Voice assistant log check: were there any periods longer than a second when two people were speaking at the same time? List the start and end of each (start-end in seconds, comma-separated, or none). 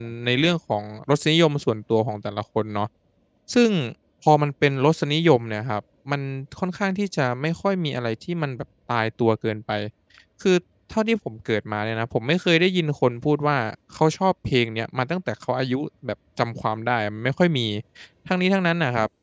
none